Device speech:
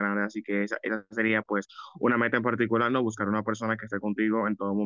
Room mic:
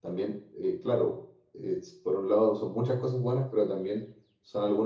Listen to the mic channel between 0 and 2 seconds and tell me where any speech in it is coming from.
user only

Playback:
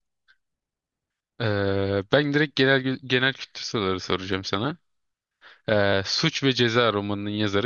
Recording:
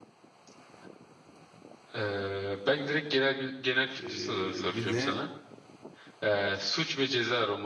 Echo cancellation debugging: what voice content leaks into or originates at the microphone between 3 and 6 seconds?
both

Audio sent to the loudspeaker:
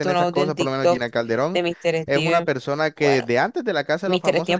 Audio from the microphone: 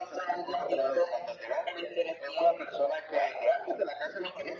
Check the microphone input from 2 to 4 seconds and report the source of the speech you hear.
echo only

